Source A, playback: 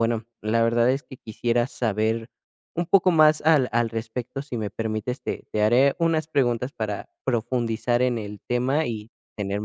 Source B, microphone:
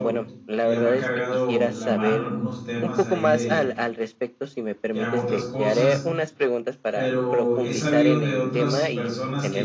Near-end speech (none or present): present